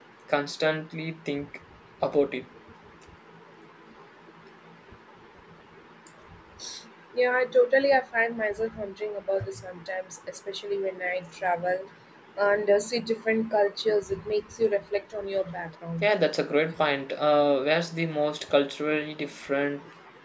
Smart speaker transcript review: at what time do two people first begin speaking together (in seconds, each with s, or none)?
none